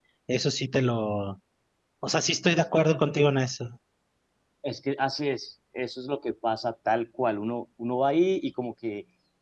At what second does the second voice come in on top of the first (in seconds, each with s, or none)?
none